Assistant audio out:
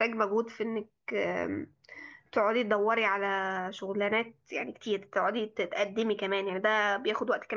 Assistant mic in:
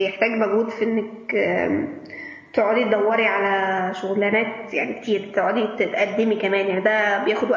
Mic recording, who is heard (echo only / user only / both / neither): echo only